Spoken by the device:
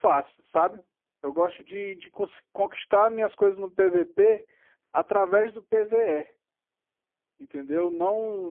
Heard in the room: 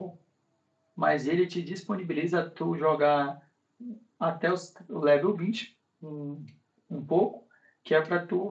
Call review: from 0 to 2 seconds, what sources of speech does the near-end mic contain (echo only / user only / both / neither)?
user only